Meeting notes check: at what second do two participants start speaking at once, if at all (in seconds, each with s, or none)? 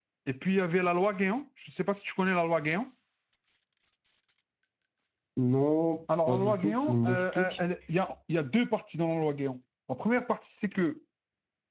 6.1 s